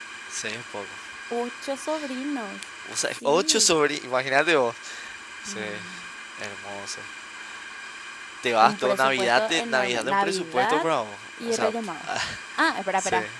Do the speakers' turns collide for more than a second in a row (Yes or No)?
Yes